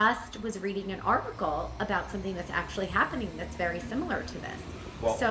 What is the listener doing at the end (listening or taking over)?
listening